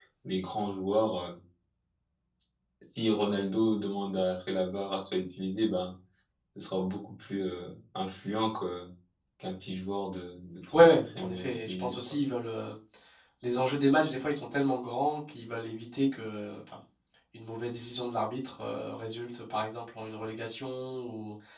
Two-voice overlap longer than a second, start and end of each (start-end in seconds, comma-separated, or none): 10.8-12.2